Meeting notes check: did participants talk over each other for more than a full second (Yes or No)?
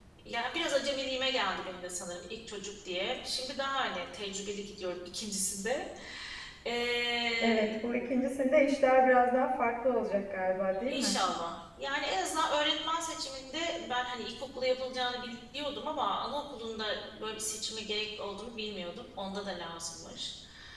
No